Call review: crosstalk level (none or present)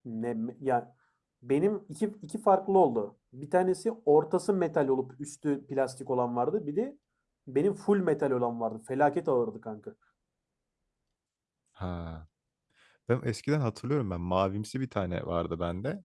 none